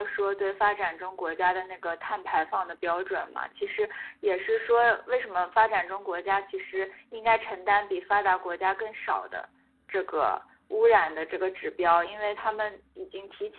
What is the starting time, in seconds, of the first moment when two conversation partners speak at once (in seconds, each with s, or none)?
none